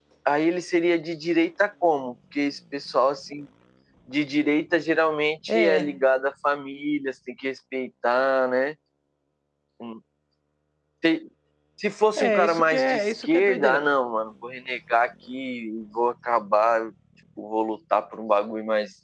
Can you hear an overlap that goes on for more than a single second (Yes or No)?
Yes